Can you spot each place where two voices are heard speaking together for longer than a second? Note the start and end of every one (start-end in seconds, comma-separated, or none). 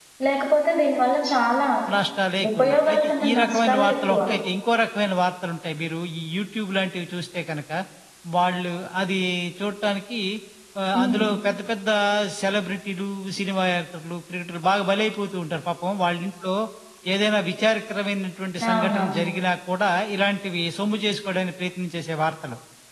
2.6-4.2